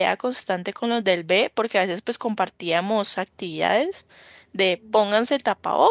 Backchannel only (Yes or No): Yes